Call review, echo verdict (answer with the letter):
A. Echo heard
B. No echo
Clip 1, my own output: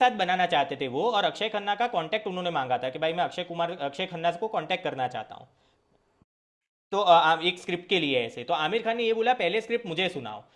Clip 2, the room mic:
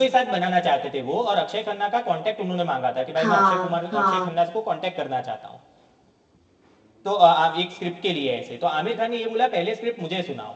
A